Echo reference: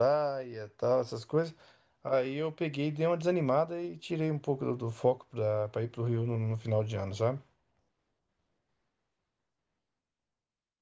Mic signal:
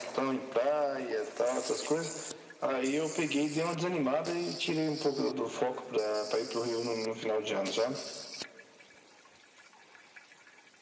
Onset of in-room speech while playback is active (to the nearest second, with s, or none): none